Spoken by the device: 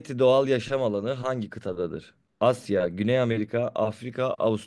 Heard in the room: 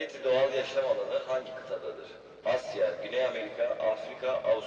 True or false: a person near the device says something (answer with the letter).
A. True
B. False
B